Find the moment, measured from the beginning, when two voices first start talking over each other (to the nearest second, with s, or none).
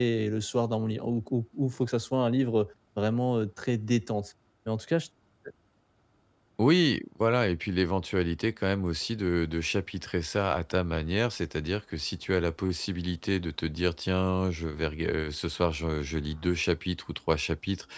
none